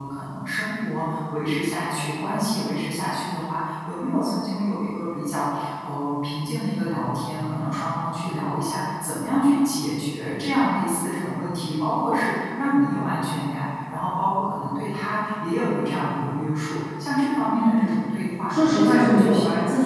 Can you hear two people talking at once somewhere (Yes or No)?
Yes